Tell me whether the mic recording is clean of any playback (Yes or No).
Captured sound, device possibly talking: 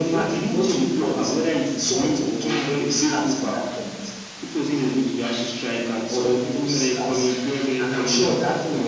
No